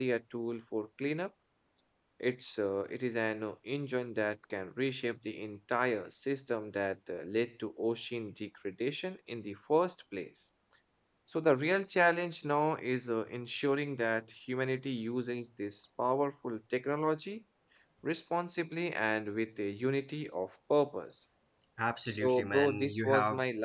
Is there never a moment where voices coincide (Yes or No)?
No